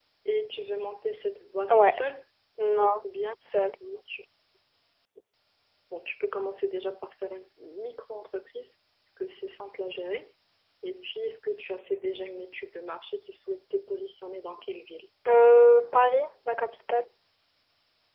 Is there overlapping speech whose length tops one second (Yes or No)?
No